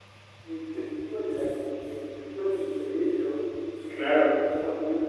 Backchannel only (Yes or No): Yes